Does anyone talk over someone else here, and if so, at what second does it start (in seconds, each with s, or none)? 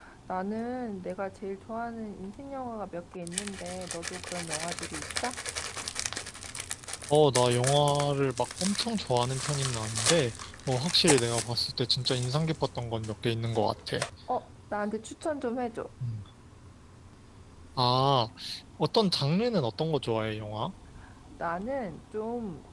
none